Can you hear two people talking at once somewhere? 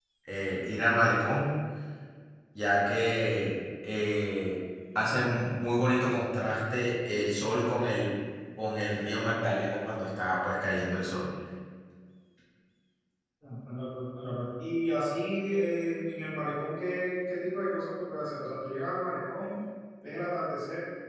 No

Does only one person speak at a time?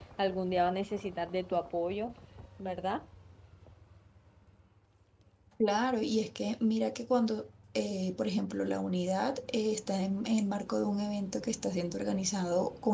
Yes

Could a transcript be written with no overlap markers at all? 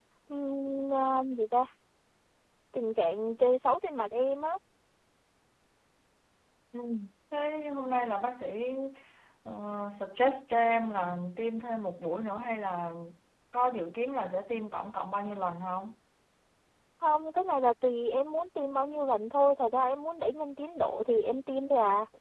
Yes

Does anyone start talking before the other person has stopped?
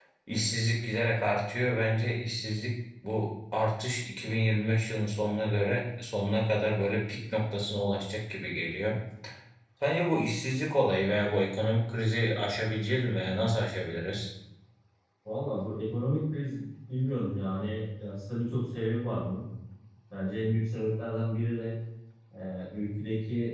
No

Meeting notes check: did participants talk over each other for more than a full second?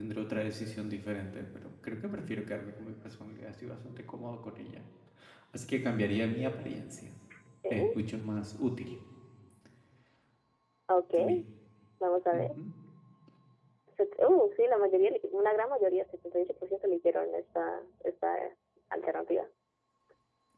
No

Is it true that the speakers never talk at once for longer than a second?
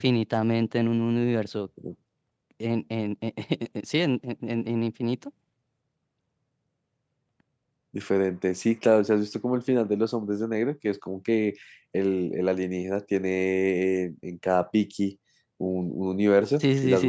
Yes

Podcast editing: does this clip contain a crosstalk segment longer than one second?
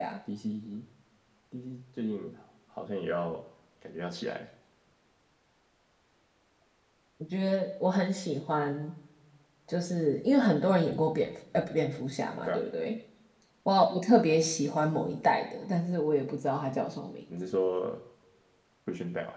No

